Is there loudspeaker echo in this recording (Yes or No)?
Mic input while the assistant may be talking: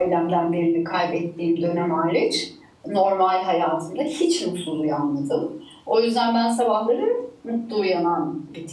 No